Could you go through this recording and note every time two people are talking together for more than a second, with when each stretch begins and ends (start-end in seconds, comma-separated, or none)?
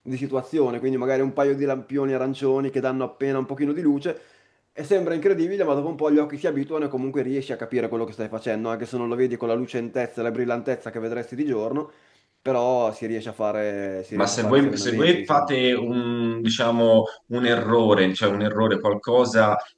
14.2-15.5